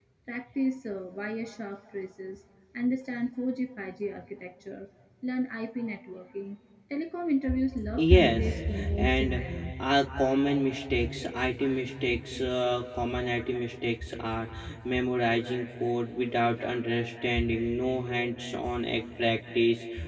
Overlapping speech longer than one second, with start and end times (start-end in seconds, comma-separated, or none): 7.9-9.4